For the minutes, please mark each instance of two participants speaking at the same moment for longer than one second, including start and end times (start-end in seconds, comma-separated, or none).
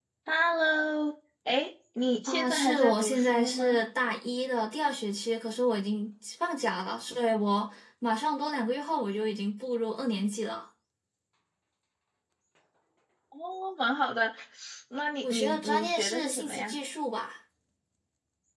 2.3-3.8, 15.3-16.8